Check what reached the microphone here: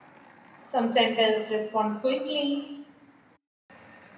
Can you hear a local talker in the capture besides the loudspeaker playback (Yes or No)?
Yes